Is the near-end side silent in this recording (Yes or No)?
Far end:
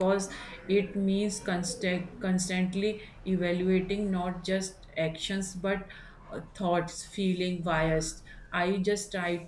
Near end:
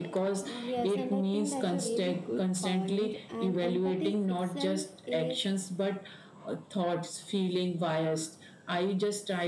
No